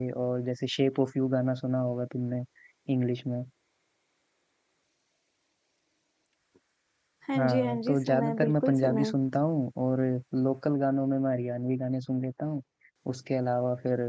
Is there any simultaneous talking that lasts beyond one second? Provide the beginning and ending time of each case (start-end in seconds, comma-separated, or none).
7.3-9.1